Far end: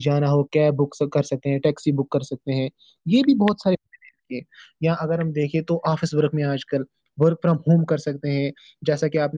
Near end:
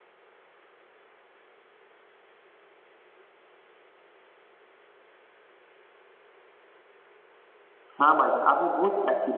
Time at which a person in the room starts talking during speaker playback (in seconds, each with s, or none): 8.0 s